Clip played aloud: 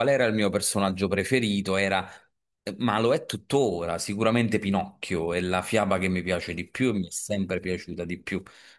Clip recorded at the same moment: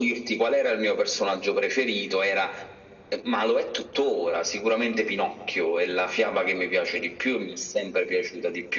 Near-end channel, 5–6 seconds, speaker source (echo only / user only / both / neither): echo only